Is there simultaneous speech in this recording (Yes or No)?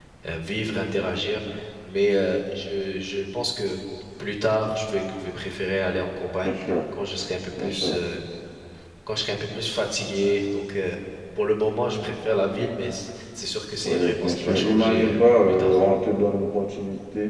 Yes